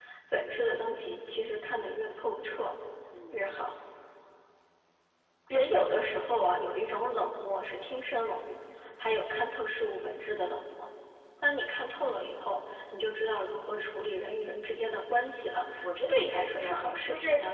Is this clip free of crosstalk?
No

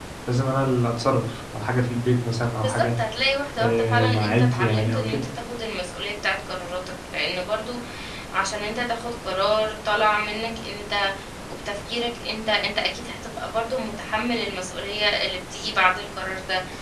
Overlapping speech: Yes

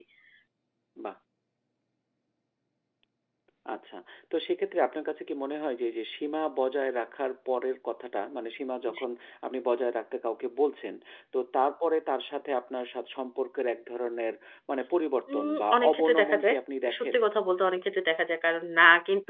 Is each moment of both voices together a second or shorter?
No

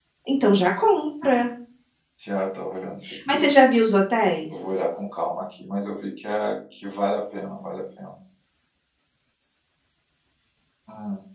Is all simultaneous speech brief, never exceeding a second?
Yes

